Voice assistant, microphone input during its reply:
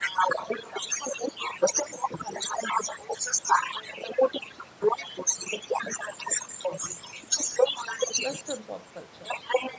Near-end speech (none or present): present